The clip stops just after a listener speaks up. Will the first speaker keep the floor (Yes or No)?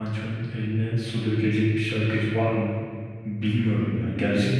No